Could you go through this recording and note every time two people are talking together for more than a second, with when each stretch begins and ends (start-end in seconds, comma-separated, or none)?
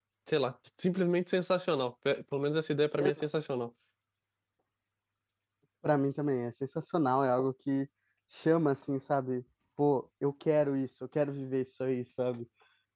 none